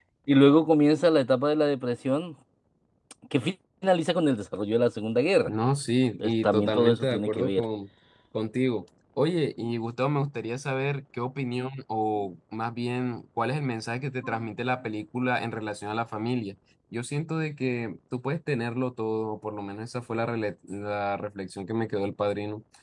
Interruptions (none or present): present